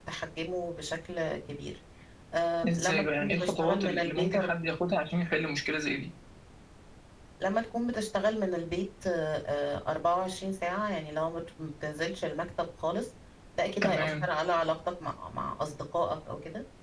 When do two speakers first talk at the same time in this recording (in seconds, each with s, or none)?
2.7 s